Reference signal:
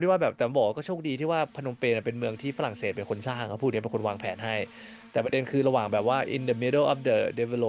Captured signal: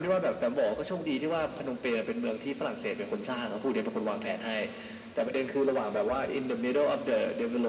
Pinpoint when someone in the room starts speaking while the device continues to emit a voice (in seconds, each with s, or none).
none